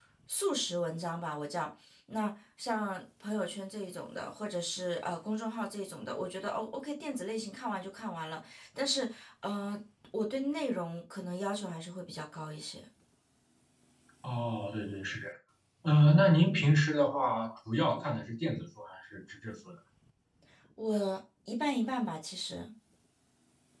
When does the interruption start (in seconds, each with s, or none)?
none